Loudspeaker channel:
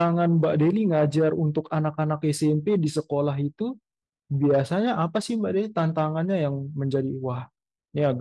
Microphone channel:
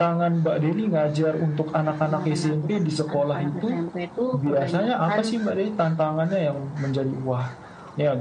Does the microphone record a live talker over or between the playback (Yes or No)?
Yes